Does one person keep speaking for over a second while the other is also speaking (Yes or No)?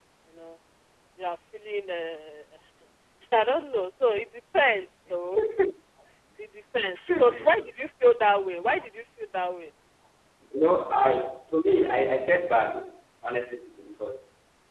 No